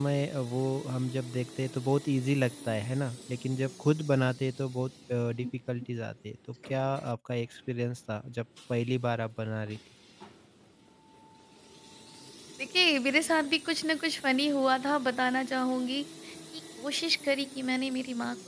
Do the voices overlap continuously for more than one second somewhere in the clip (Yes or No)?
No